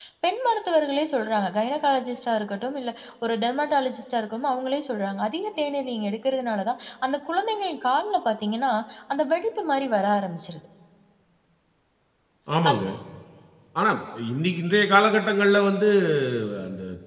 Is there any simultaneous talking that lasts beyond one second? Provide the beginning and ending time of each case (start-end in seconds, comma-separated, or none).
none